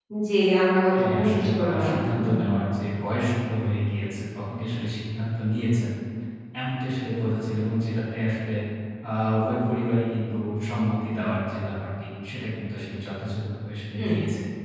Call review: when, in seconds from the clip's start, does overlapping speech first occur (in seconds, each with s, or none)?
1.0 s